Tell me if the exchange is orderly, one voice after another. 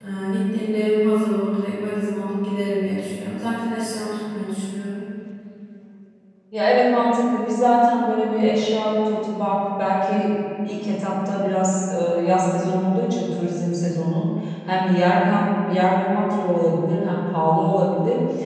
Yes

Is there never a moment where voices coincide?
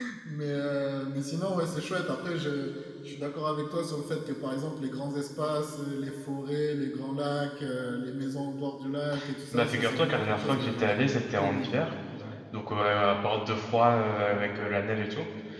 No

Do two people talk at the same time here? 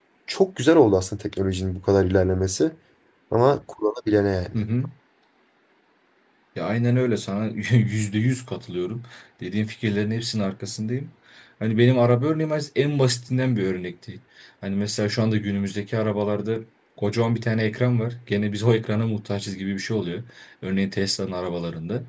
No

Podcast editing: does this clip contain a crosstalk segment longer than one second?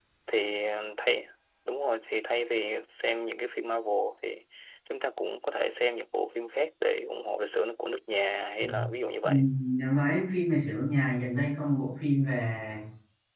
No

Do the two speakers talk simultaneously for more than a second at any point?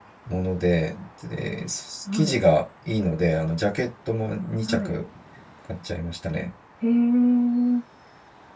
No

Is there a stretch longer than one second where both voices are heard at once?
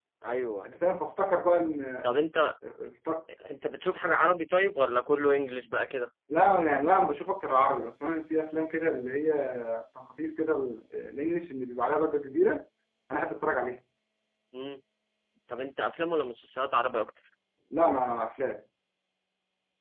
No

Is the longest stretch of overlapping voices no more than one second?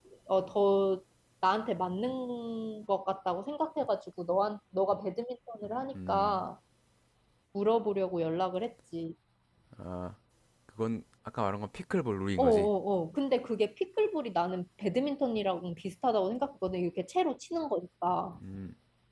Yes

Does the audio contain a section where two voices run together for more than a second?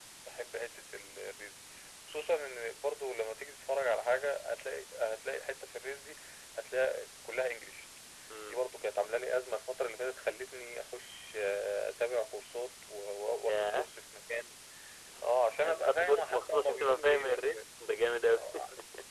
Yes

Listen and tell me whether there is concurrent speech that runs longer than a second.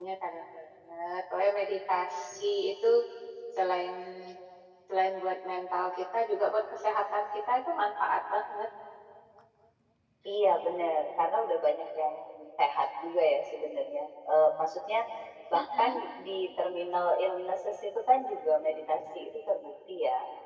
No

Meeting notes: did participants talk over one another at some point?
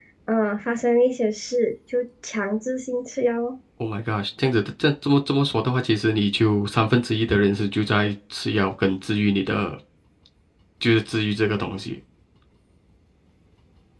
No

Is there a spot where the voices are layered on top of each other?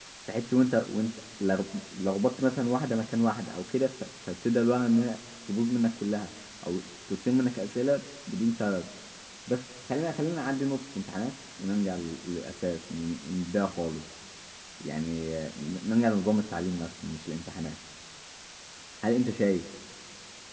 No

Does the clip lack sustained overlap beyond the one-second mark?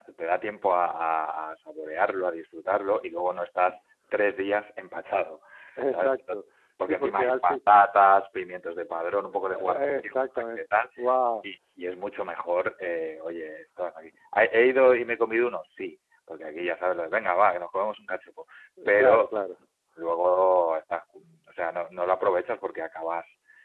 No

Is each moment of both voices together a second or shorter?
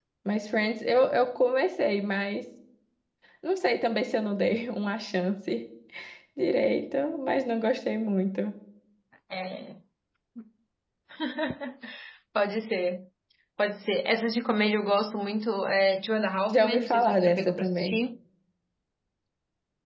No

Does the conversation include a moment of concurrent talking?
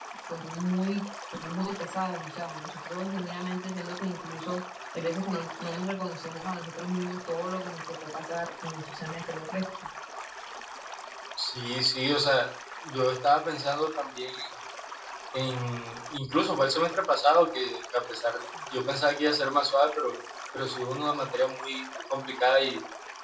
No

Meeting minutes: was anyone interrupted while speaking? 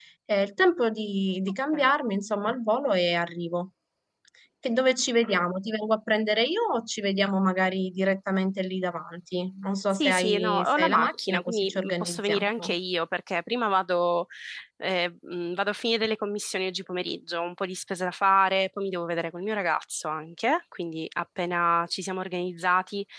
Yes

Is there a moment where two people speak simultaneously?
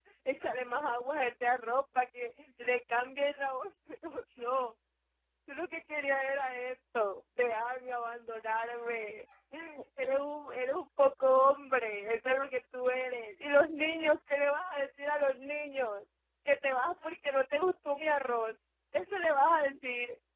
No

